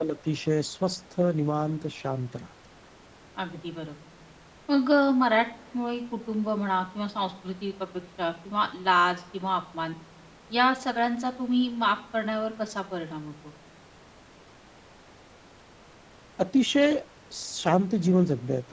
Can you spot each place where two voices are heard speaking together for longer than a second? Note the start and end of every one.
none

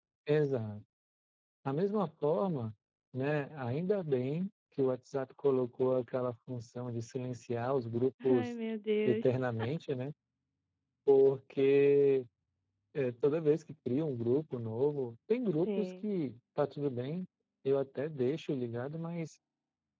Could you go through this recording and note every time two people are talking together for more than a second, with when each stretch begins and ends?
none

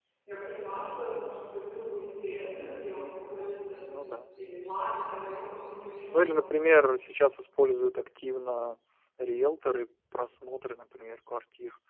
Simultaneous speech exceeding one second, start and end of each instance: none

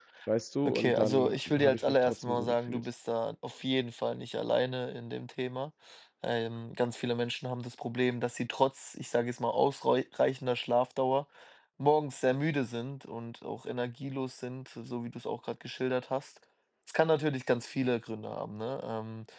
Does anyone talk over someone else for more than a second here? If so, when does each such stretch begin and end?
0.7-2.8

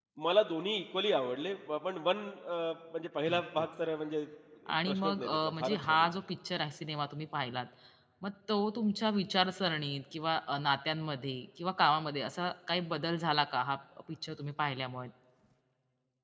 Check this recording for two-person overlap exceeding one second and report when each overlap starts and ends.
4.9-6.1

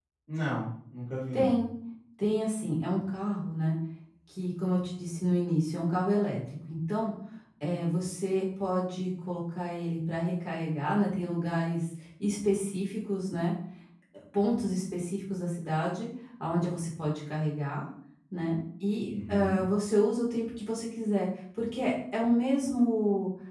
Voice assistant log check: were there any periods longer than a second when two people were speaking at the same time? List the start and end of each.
none

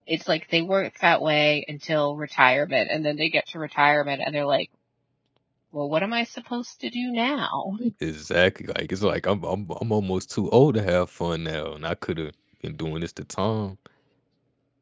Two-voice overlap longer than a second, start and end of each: none

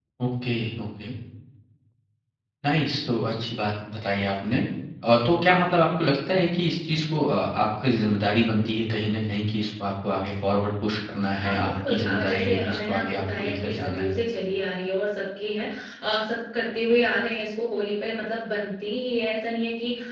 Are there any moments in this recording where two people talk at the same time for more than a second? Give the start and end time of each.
11.3-14.1

